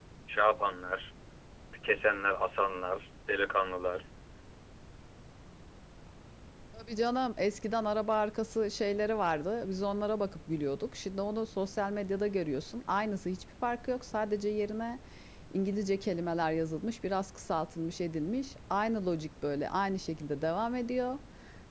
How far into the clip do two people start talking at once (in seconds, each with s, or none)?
none